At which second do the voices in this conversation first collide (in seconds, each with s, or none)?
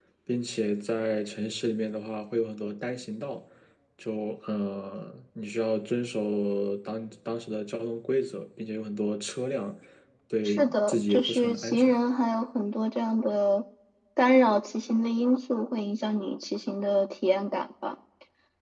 10.4 s